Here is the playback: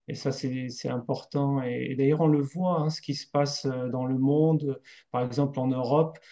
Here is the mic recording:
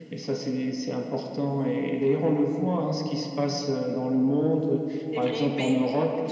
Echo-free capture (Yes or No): No